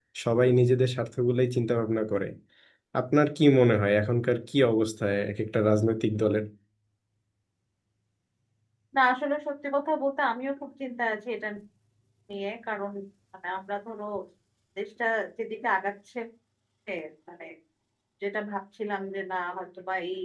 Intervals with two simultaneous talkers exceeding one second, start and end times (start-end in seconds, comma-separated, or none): none